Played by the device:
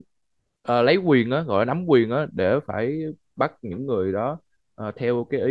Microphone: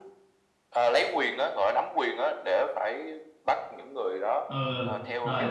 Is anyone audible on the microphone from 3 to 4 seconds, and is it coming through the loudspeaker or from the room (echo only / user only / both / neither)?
echo only